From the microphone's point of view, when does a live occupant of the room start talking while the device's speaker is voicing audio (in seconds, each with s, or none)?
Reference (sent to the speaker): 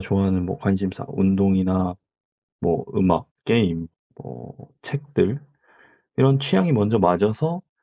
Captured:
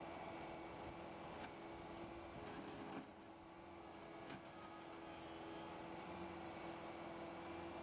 none